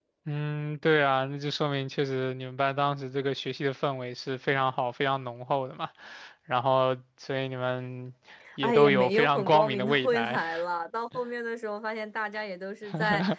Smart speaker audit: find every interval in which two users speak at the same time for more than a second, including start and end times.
8.6-10.4

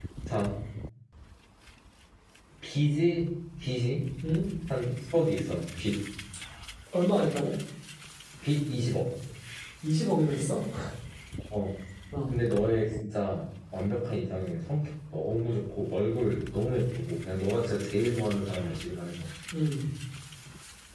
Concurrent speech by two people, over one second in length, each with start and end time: none

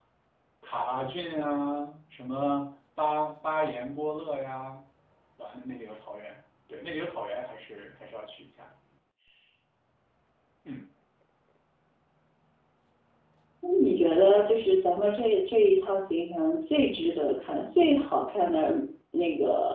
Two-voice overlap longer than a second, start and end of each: none

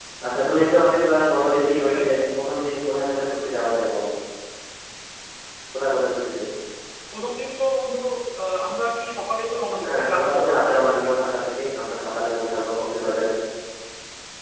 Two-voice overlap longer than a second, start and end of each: 9.9-11.1

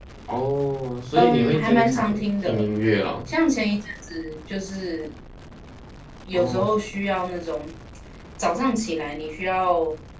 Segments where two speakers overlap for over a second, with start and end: 1.2-2.7

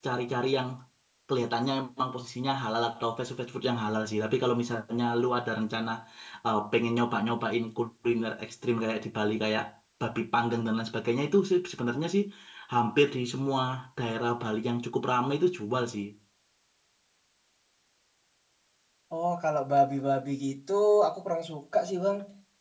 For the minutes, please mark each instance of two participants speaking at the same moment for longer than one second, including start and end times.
none

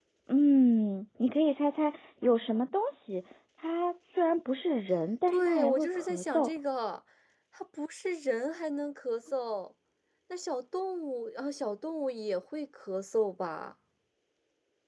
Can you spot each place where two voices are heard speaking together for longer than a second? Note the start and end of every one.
5.3-6.5

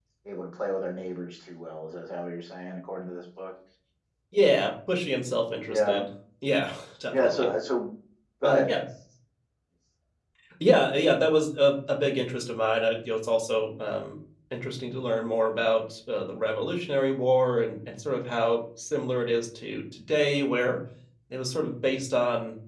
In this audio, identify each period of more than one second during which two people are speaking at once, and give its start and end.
none

